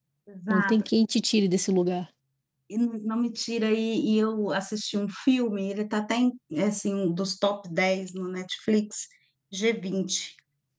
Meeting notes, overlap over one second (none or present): none